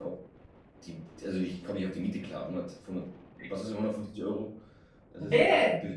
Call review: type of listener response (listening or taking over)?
taking over